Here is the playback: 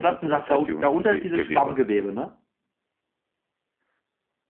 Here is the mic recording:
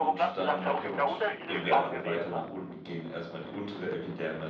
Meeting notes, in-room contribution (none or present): present